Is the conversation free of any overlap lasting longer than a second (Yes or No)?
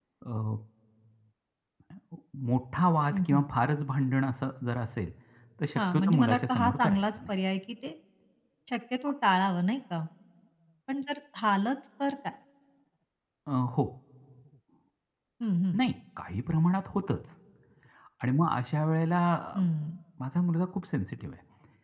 No